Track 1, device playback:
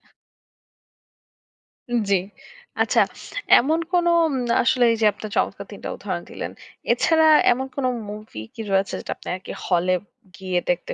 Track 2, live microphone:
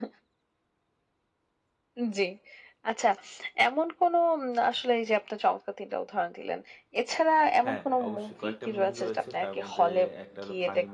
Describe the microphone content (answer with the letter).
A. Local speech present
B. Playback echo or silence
A